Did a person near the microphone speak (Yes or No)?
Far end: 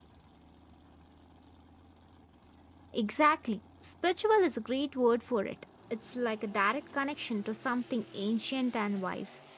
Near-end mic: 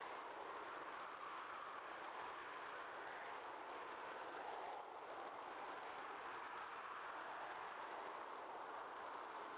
No